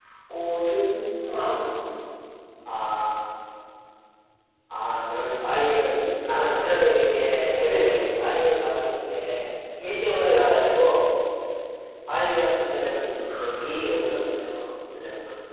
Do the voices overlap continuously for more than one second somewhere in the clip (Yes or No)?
No